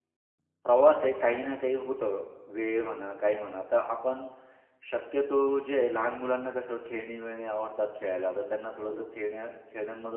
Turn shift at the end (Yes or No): No